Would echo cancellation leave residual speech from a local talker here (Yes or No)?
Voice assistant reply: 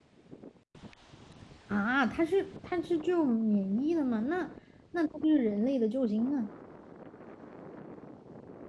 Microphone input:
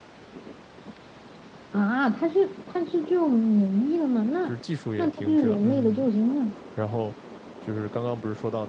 Yes